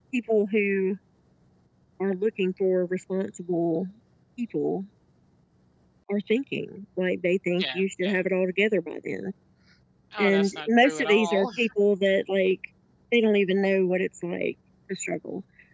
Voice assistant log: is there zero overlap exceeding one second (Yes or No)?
No